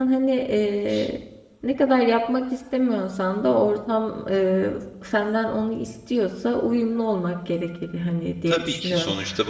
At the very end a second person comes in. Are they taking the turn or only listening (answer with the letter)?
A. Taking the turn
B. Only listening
A